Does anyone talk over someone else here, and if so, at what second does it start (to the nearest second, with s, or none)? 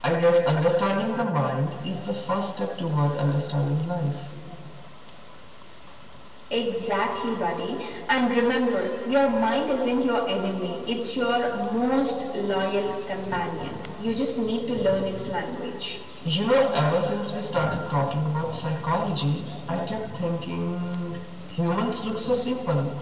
none